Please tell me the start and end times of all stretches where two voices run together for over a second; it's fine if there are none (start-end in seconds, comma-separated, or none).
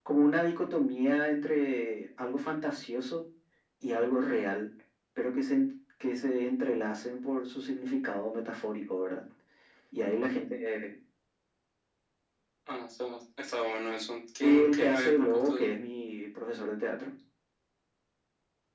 14.4-15.7